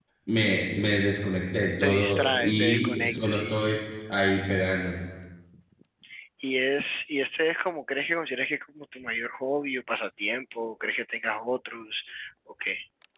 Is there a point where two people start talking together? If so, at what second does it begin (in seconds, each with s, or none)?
1.8 s